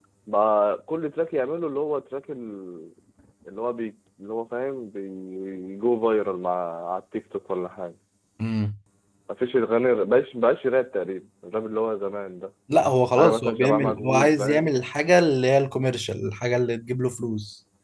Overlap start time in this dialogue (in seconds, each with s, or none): 13.1 s